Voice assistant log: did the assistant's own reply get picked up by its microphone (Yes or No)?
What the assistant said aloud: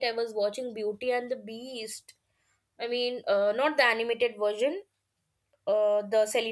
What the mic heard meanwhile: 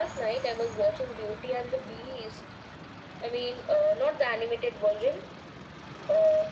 Yes